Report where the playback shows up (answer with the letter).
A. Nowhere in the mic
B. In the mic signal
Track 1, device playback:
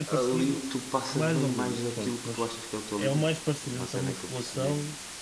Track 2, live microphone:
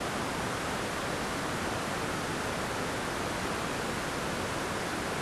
A